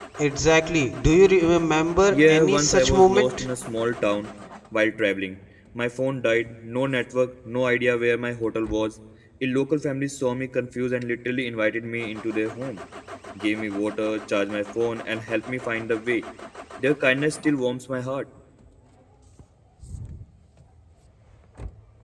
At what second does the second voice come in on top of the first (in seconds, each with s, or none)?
2.1 s